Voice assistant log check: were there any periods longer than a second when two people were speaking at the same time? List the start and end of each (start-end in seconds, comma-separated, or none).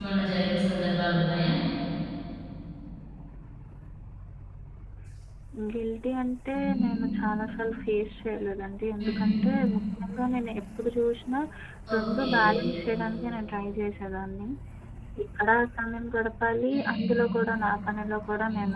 none